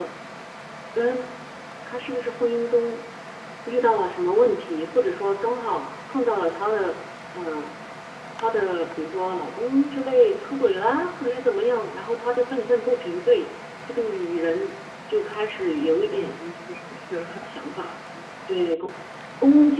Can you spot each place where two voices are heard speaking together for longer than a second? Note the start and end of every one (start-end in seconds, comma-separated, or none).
none